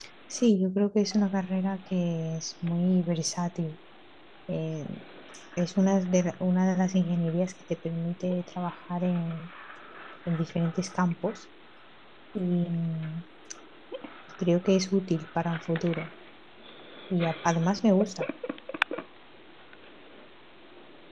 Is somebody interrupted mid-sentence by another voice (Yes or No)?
No